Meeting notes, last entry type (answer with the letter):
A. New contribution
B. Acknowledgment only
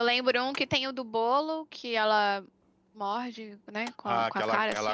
A